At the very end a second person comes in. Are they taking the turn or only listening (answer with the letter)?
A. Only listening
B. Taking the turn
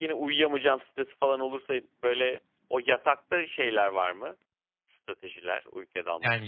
B